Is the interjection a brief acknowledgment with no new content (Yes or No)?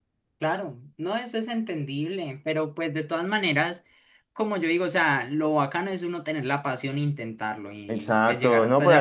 No